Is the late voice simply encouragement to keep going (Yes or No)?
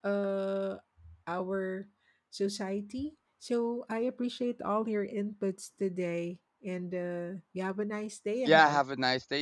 No